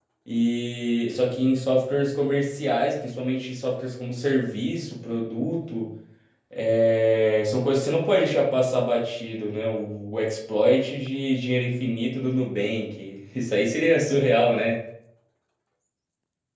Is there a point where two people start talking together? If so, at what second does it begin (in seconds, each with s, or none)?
none